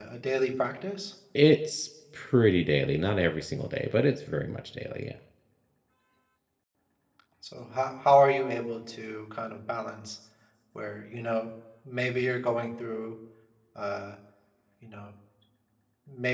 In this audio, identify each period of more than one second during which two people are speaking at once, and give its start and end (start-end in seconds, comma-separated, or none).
none